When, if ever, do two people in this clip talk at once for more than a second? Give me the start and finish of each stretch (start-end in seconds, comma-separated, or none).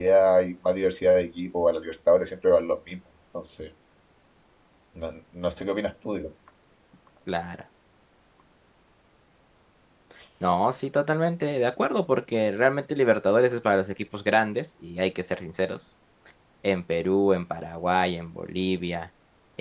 none